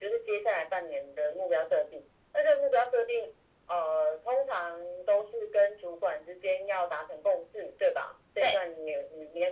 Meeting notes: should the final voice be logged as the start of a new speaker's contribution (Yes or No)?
No